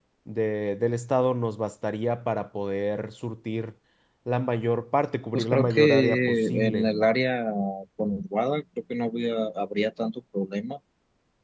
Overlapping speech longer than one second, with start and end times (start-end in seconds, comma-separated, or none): 5.3-6.9